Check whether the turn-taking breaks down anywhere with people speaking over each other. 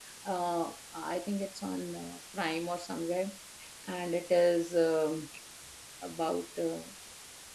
No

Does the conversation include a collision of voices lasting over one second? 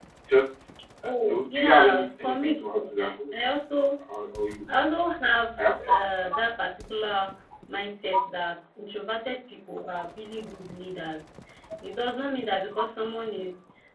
Yes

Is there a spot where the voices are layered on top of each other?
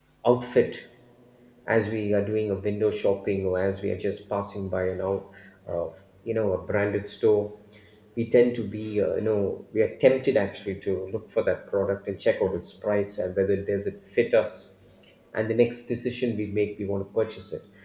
No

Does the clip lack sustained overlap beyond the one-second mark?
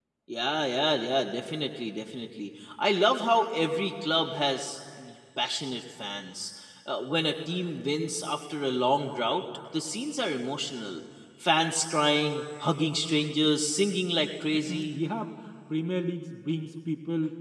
Yes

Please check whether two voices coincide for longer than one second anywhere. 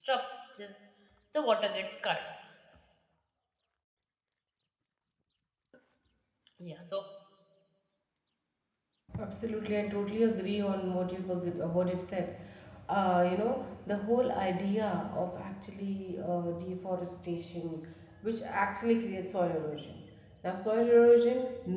No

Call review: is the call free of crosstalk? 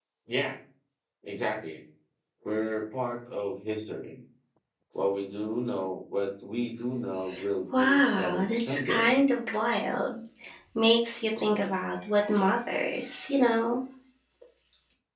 No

